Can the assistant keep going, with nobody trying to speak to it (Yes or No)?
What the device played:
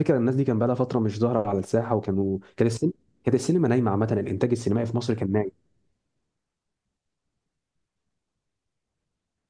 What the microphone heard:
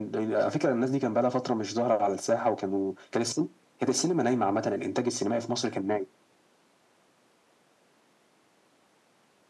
Yes